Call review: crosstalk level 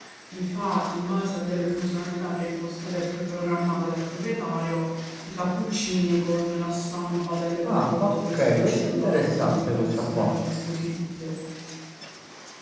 present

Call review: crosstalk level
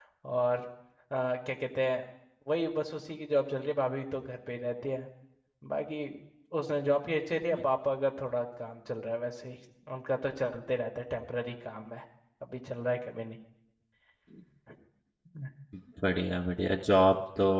none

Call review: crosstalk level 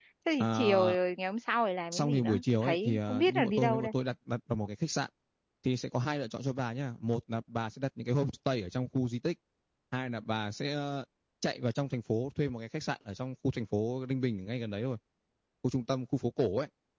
present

